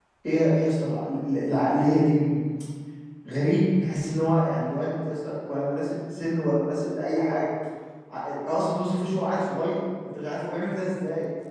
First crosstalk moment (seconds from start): none

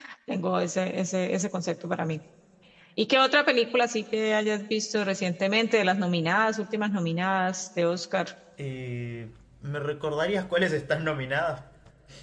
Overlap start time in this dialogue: none

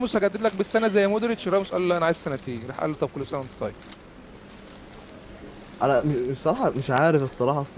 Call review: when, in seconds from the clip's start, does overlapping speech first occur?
none

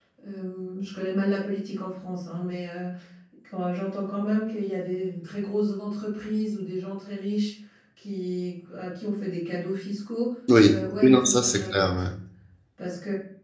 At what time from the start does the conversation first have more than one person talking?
10.6 s

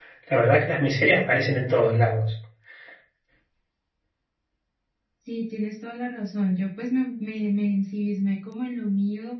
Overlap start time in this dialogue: none

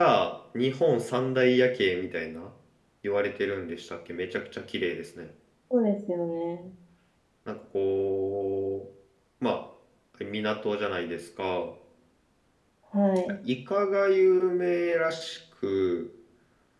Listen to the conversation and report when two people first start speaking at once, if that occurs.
none

